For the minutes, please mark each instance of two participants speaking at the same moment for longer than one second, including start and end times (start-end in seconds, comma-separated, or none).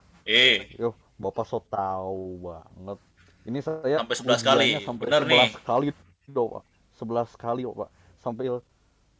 4.0-5.5